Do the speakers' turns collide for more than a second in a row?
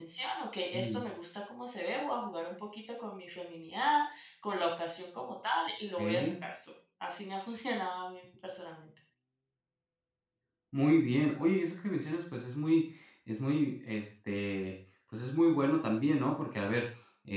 No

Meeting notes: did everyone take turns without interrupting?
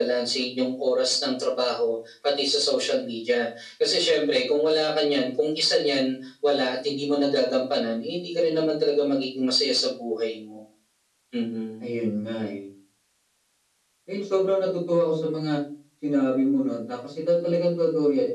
Yes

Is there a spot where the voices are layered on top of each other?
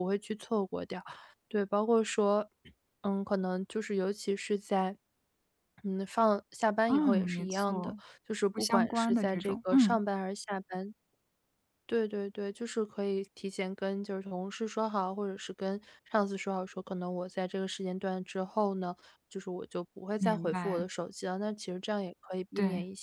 Yes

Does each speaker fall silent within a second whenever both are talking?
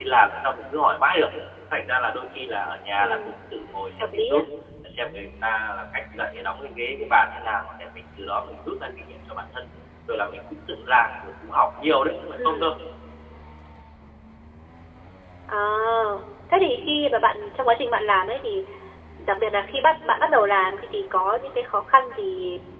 Yes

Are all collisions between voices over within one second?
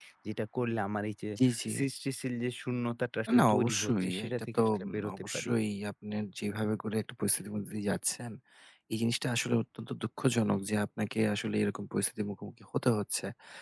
No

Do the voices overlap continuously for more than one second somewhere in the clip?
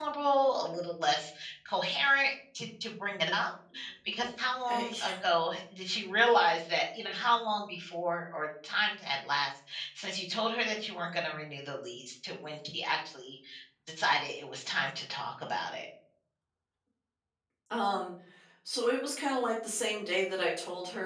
No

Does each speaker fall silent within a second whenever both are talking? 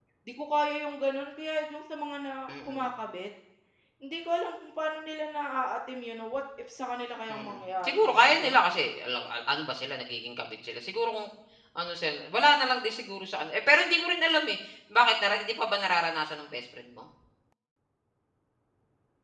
No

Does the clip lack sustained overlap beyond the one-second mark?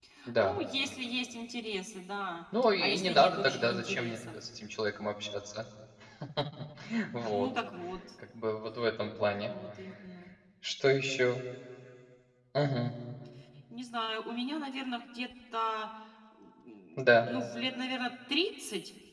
No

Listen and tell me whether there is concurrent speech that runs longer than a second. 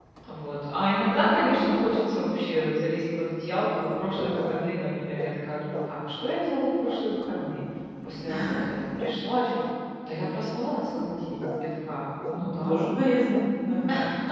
No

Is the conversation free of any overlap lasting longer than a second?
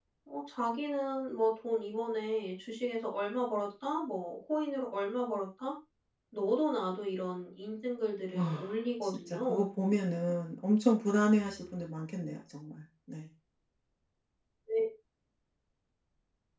No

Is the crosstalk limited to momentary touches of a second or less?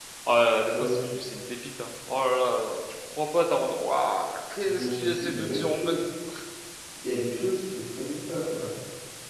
No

